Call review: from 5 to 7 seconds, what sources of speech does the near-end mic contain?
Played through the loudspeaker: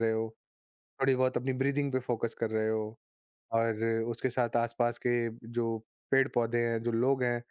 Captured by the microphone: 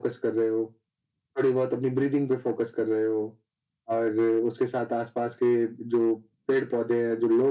echo only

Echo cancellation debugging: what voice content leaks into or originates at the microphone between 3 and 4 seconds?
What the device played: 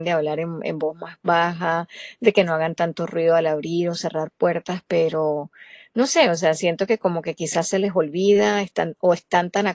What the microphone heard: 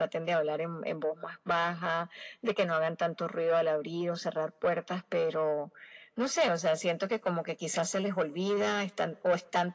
echo only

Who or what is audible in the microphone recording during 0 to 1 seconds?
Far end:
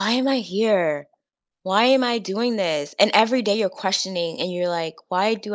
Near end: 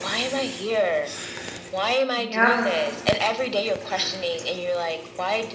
echo only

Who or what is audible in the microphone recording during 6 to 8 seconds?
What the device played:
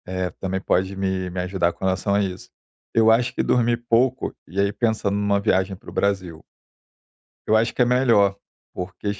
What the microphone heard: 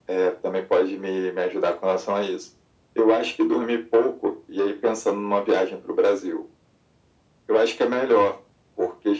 echo only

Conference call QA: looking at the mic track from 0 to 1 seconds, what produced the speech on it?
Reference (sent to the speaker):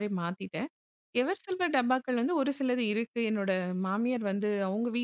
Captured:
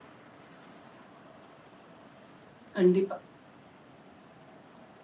neither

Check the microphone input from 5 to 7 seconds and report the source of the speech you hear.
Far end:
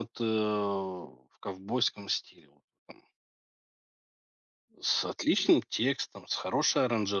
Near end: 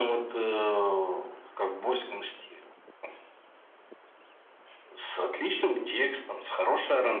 echo only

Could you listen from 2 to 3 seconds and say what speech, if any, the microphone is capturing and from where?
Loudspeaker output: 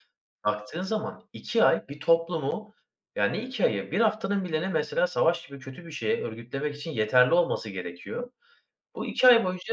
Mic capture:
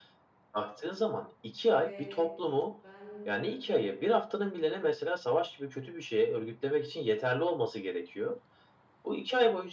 both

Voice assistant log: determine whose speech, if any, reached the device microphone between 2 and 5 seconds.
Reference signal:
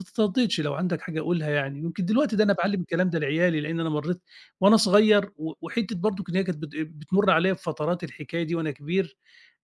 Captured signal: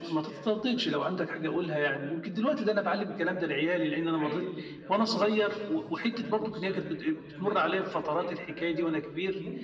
both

